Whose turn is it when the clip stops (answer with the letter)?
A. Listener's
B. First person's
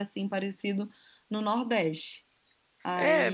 A